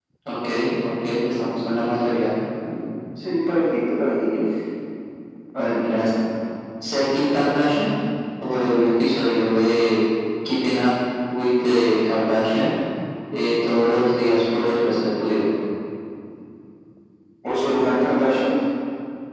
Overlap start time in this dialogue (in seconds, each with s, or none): none